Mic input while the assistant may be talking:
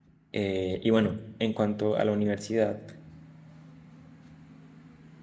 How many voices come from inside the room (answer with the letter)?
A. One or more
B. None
A